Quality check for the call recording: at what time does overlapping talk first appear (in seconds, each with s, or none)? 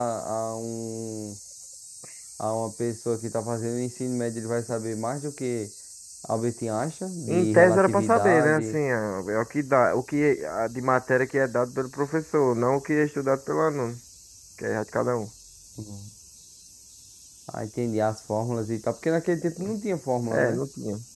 7.3 s